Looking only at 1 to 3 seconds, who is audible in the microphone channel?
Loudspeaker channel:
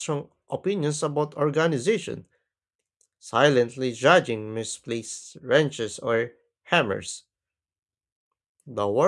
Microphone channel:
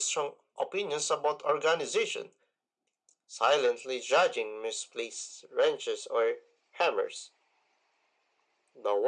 echo only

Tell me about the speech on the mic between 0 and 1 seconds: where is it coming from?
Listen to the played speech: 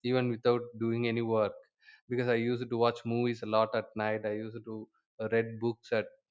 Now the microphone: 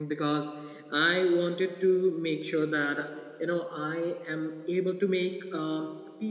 user only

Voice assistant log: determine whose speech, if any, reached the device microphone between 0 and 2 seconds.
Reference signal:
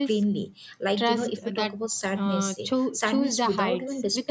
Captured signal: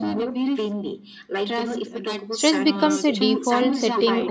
echo only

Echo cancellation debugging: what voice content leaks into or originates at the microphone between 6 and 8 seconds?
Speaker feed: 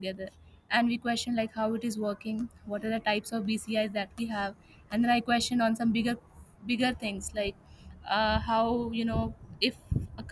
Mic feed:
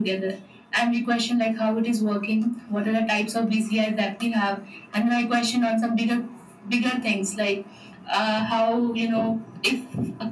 echo only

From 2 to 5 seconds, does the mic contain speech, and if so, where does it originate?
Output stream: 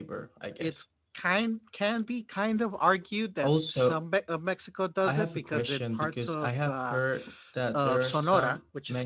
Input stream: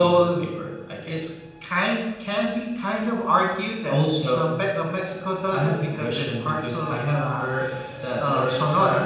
echo only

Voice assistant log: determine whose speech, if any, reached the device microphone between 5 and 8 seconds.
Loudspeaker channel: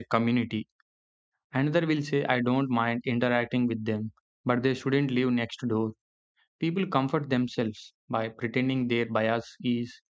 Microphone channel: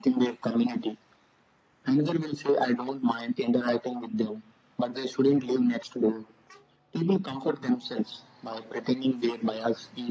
echo only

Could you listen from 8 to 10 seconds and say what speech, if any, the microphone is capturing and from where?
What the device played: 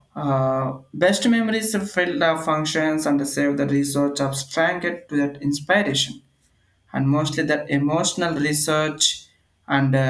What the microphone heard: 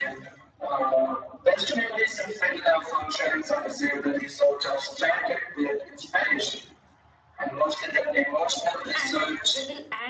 both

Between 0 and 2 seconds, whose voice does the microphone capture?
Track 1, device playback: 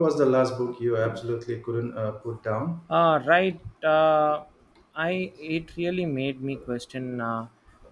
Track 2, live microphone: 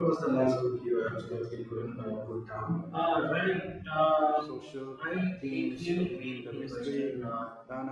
echo only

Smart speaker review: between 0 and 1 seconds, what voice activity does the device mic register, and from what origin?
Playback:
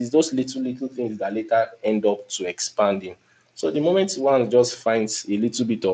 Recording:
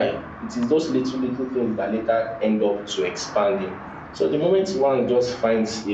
echo only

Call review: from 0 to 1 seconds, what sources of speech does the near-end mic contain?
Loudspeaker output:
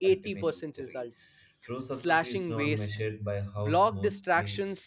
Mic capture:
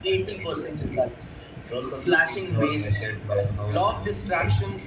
echo only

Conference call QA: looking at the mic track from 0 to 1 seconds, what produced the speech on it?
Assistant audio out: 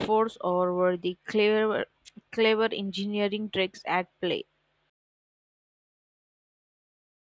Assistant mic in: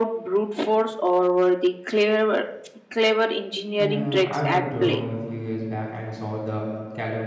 echo only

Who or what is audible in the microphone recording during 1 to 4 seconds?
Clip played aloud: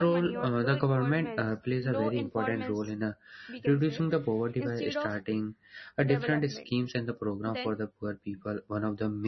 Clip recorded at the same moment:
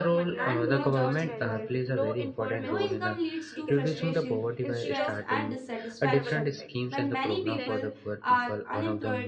both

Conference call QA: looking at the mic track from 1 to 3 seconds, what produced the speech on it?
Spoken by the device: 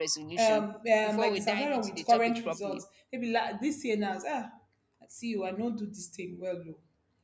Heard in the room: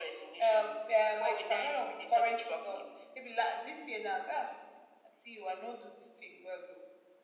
echo only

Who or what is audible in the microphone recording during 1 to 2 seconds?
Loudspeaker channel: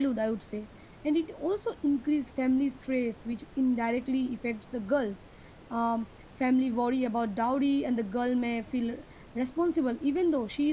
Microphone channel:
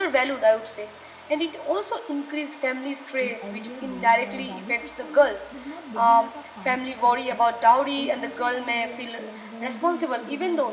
echo only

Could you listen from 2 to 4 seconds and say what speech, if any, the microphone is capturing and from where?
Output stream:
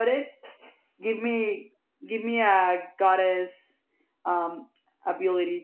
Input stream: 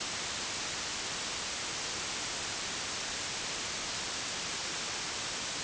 neither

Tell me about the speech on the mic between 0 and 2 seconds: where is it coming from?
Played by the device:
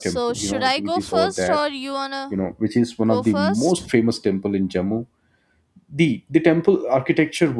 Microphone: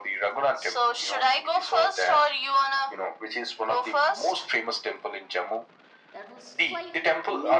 echo only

